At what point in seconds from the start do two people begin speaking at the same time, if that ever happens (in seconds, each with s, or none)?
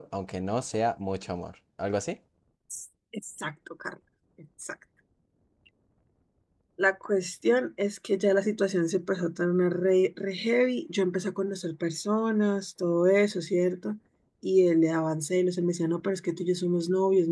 none